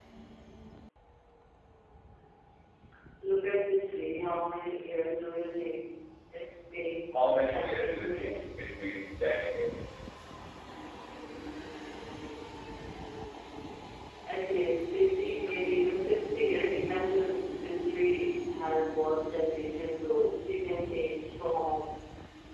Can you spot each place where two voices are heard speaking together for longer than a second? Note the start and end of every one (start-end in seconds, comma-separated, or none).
7.1-8.4